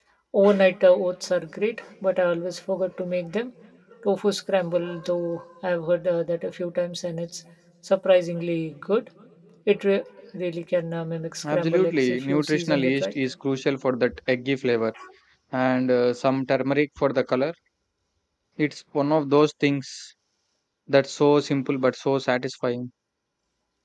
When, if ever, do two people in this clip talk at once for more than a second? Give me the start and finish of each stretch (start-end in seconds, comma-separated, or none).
11.4-13.1